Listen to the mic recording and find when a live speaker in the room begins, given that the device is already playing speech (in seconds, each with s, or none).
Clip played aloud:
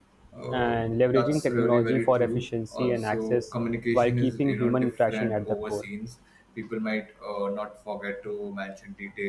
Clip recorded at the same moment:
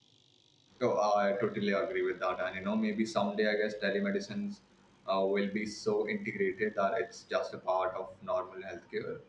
0.8 s